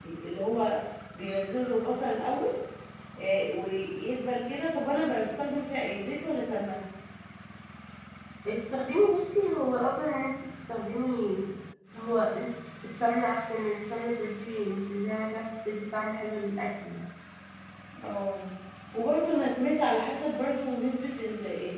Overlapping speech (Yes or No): No